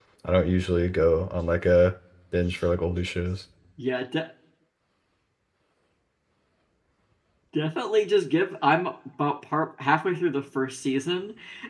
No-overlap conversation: Yes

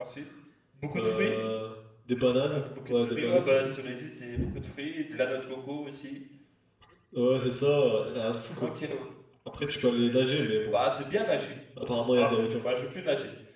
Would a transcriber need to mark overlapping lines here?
Yes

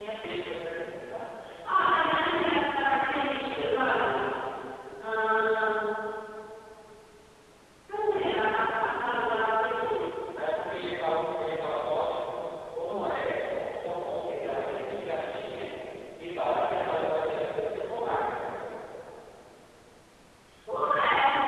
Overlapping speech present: No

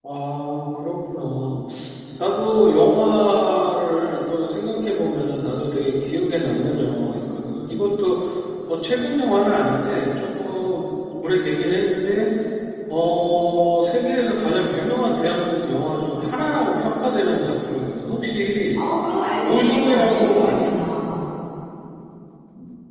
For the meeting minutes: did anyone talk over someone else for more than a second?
Yes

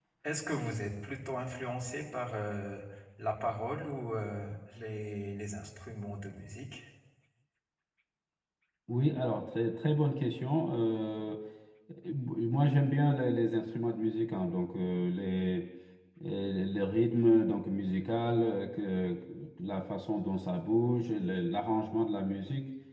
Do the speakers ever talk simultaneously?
No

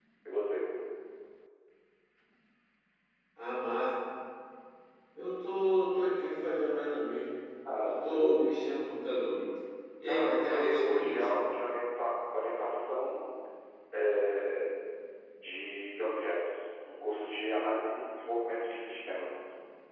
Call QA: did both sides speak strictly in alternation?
No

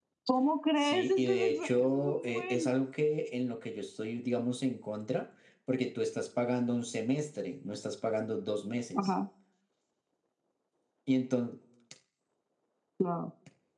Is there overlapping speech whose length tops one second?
Yes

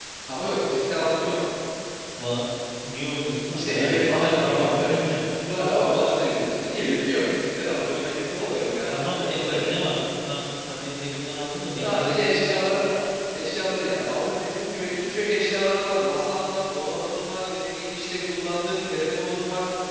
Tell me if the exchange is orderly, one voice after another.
No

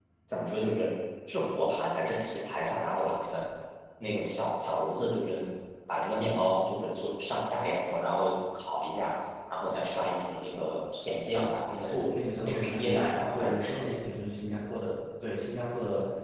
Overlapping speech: Yes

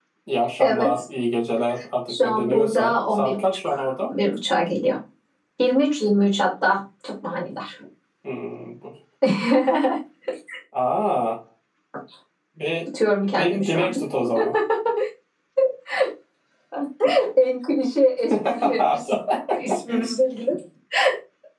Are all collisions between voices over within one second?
No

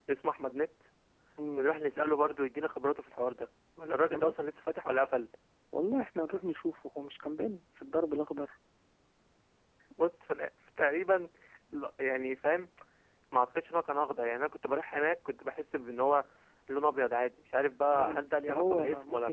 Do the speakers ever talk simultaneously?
Yes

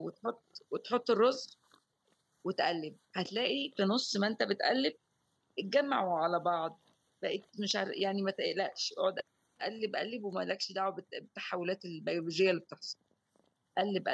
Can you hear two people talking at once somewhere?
No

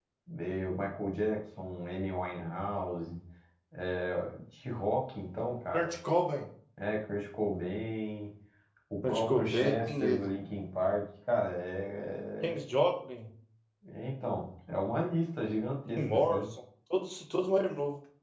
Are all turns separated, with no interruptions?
No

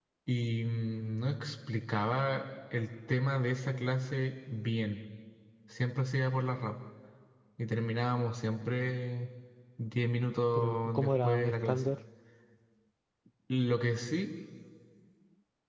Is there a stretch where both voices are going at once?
Yes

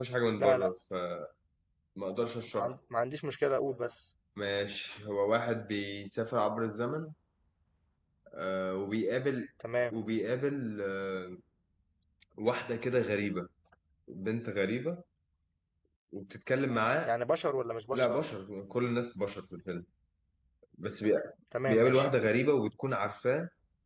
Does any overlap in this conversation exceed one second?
No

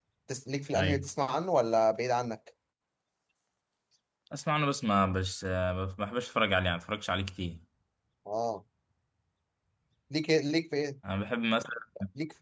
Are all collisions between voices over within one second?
Yes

